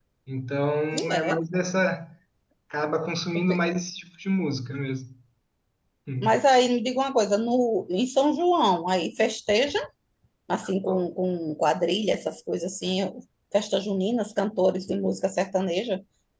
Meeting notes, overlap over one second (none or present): none